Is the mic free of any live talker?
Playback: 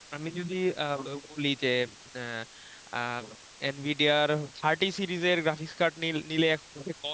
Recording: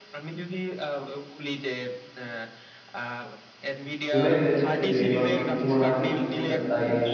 No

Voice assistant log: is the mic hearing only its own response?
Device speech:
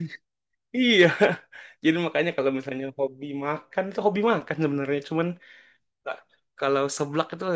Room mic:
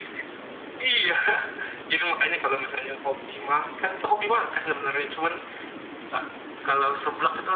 Yes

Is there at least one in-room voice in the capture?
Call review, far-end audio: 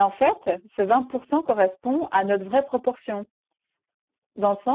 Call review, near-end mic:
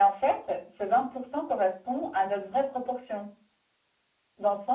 No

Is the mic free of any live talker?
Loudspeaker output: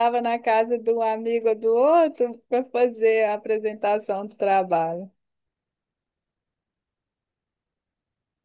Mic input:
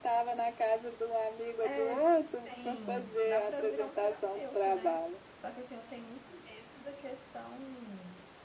No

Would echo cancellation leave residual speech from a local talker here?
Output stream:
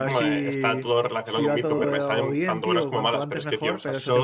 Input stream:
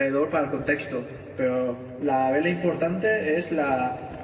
Yes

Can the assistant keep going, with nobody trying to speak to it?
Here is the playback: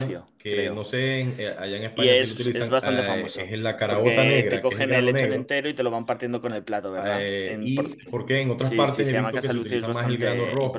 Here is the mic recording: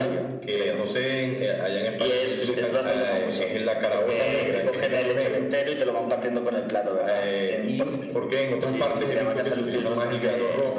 Yes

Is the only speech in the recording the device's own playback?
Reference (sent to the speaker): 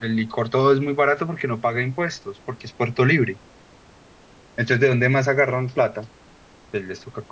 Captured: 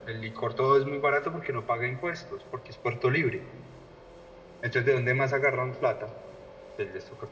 Yes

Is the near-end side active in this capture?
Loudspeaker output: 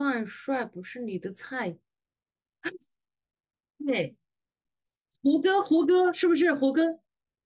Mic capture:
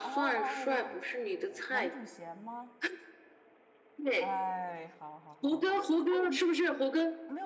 Yes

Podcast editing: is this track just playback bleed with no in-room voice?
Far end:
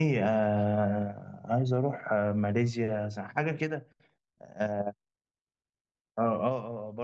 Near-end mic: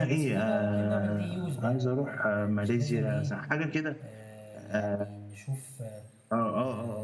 No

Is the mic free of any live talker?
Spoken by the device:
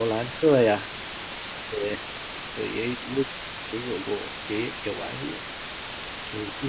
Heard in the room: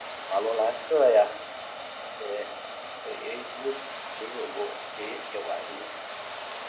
Yes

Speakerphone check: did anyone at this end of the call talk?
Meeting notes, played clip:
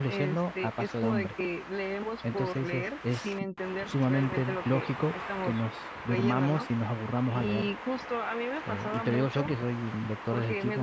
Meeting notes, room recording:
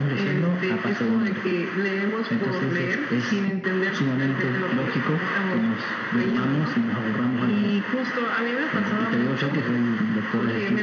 No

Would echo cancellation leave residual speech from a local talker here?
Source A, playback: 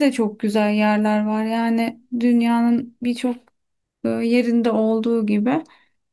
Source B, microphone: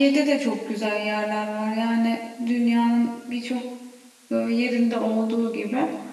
No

